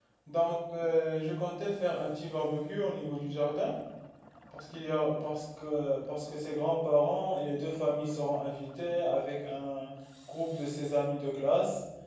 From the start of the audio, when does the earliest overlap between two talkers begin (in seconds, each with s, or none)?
none